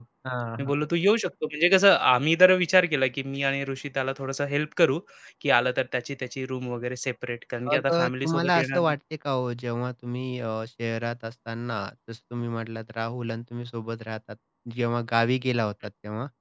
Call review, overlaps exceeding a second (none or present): present